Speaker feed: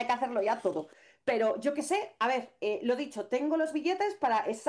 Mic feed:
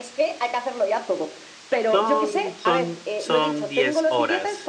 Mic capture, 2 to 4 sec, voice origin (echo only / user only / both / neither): both